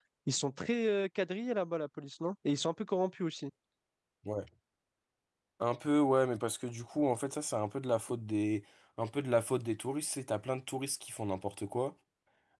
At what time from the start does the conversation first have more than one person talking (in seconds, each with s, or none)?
none